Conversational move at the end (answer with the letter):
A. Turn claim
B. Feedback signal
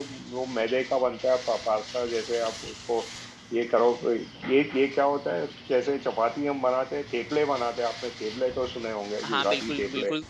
A